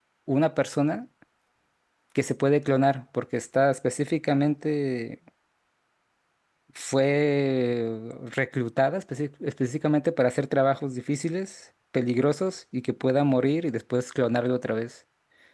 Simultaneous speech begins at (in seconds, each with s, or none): none